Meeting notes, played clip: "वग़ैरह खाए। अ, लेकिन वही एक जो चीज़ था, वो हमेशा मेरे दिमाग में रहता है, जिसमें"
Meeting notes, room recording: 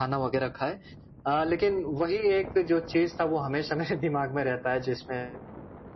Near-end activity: none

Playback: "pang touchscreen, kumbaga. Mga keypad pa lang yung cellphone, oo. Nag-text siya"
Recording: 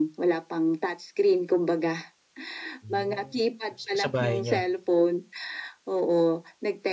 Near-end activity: present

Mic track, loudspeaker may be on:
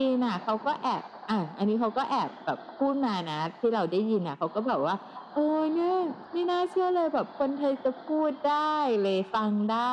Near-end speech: none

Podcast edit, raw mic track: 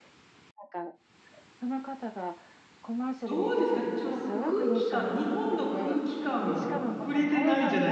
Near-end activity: present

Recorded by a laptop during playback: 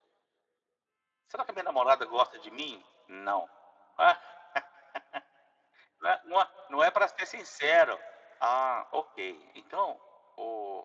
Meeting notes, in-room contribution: none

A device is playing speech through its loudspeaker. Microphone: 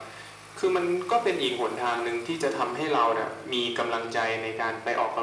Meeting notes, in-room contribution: none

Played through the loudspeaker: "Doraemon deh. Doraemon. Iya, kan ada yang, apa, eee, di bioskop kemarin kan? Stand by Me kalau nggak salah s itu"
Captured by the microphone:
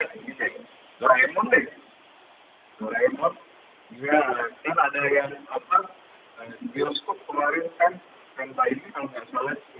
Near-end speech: none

